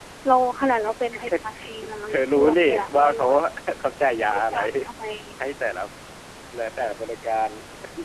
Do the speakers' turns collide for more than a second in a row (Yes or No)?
Yes